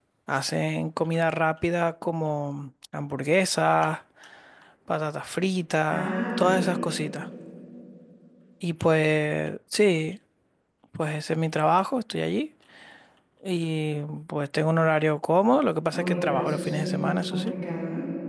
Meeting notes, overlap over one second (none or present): present